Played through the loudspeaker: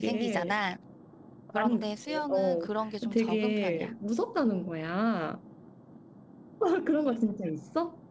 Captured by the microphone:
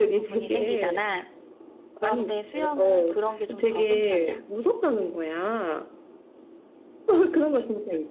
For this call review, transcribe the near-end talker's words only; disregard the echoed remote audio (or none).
none